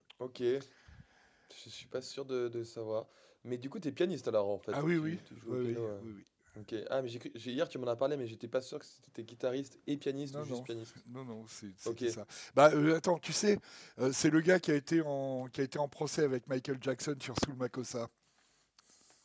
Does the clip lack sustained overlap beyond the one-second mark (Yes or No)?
No